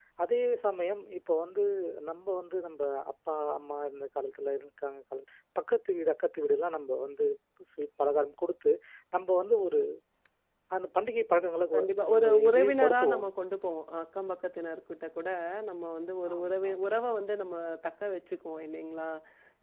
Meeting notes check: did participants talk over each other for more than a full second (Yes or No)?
Yes